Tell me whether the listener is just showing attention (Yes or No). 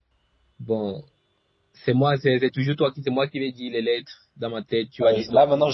No